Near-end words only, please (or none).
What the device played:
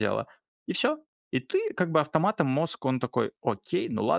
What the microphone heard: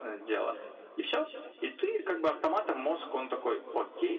none